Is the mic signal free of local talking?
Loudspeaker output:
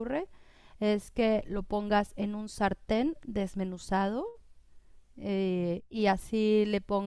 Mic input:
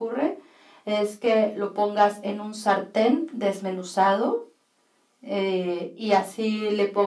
Yes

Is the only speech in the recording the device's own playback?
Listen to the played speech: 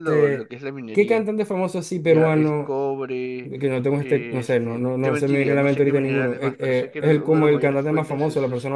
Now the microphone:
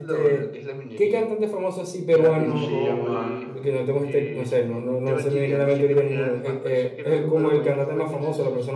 No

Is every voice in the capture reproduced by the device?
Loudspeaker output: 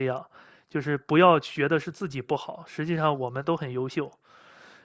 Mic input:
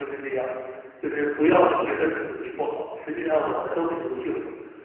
Yes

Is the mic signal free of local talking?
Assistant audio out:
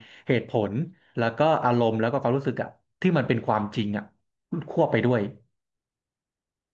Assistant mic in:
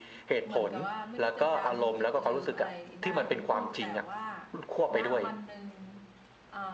No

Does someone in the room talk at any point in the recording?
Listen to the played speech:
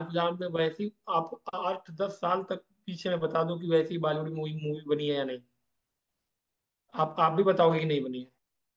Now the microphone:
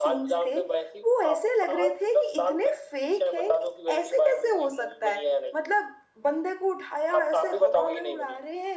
Yes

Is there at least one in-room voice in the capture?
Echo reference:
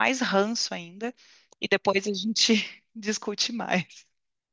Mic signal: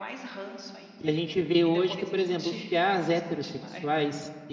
Yes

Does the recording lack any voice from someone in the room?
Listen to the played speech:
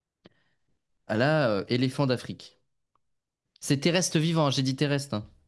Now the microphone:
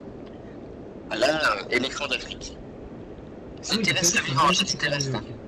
No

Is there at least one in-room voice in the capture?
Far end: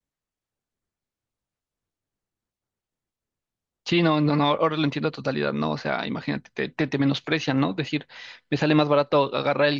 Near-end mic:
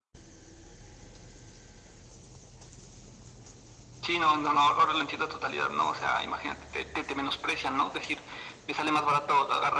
No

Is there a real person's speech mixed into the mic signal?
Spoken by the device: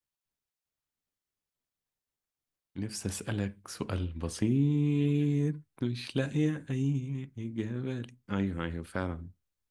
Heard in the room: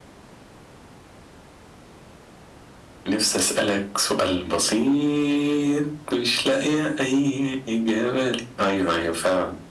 No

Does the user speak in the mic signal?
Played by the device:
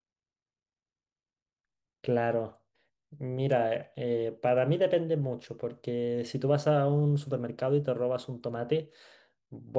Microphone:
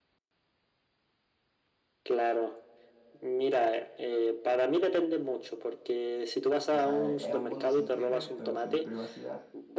Yes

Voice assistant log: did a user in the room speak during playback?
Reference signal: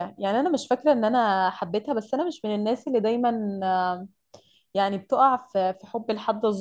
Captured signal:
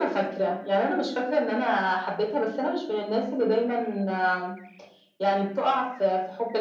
No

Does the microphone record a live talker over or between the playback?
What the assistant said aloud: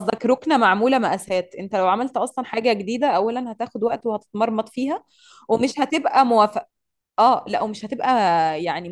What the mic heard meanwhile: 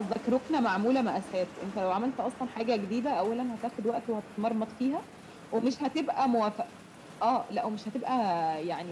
No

